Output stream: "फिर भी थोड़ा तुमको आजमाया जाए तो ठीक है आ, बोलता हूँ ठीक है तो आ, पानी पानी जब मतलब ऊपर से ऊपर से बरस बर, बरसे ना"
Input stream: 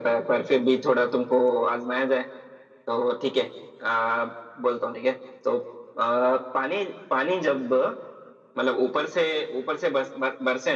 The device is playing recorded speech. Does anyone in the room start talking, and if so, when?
none

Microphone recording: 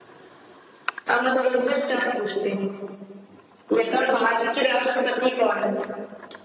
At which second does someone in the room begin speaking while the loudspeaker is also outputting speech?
none

